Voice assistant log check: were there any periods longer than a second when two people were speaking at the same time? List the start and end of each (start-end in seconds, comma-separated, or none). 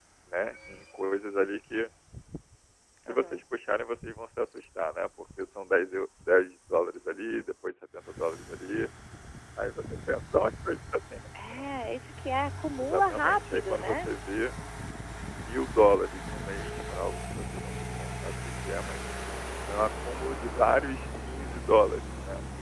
12.8-14.1